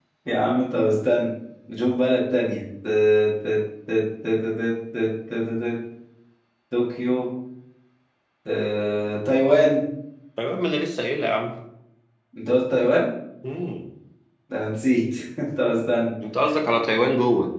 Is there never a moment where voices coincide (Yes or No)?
Yes